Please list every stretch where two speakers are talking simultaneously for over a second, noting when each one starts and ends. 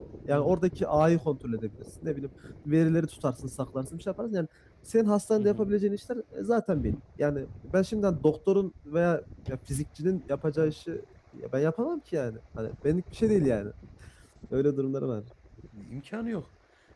none

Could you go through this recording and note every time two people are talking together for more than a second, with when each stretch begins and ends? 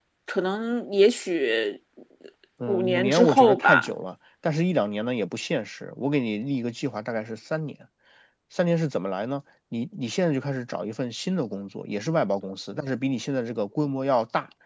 2.7-3.9

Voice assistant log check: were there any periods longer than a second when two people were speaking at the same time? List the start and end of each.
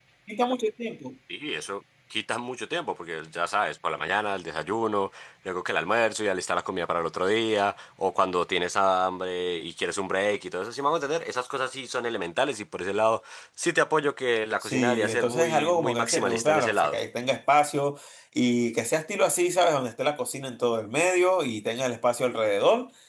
14.6-17.0

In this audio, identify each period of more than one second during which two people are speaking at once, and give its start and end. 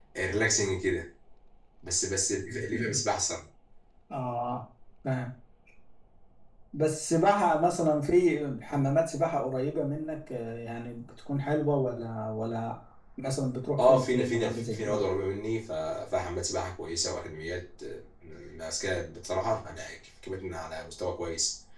13.7-15.0

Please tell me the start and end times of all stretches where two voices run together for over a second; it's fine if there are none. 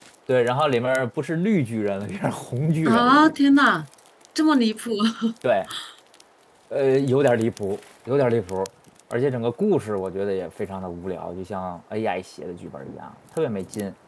none

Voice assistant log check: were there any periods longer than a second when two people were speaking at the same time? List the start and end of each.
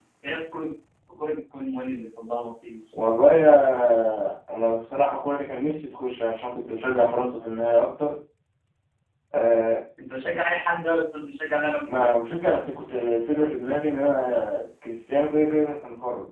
none

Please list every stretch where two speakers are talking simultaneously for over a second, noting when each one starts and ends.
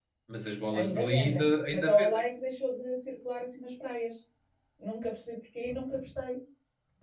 0.7-2.2

